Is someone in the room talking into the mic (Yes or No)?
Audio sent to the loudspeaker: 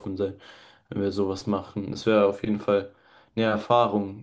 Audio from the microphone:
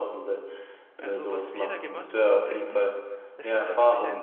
Yes